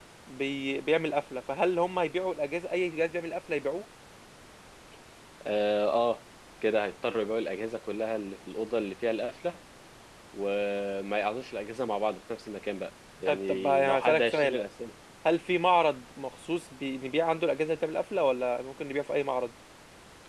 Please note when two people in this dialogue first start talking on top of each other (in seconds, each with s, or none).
13.3 s